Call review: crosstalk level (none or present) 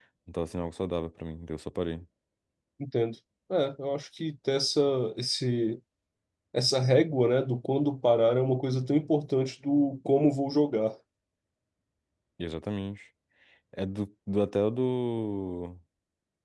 none